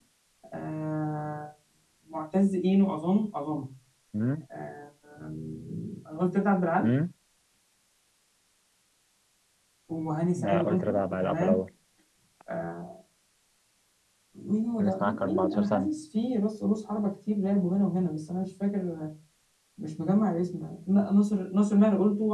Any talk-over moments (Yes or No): Yes